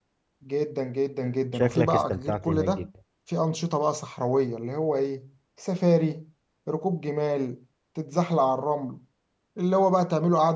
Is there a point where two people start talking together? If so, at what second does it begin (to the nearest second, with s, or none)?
2 s